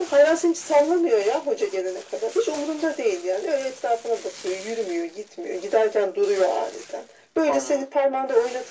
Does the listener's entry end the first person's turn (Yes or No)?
No